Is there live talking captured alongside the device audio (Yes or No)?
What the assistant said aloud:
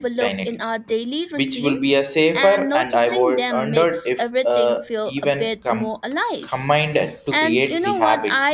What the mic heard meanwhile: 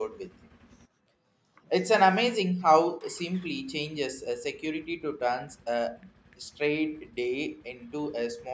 Yes